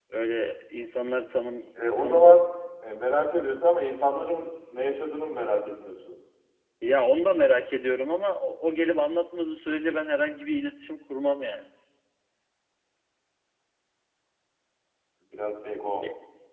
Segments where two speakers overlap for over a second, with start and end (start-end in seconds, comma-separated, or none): none